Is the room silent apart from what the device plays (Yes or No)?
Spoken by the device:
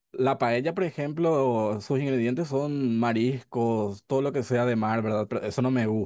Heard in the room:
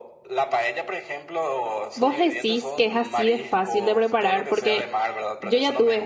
No